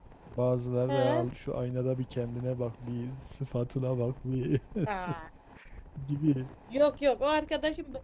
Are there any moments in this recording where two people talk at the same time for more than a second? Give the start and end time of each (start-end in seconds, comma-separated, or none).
none